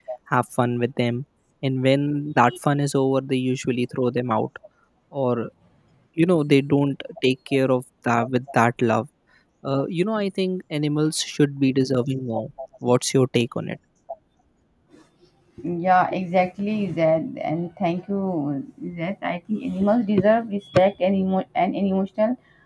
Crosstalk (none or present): none